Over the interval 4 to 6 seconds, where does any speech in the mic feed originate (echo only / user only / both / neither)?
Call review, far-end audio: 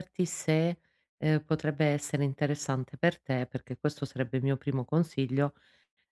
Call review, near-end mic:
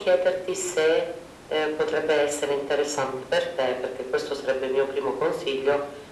echo only